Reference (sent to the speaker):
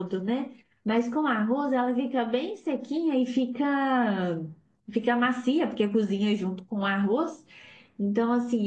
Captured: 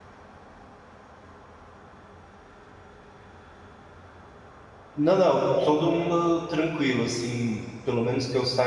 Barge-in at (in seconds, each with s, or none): 5.0 s